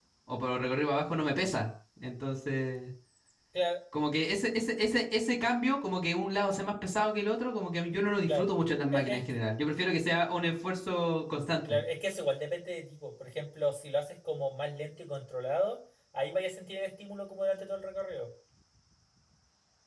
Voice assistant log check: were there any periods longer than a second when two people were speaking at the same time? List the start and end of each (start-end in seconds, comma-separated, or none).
none